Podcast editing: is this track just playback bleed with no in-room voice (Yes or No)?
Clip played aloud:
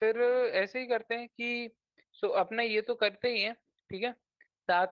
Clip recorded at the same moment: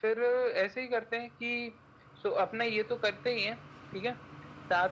Yes